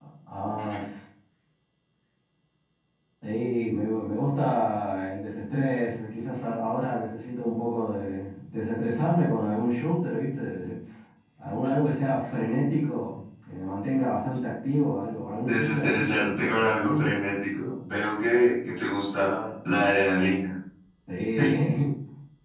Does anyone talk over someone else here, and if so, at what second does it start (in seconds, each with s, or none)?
15.4 s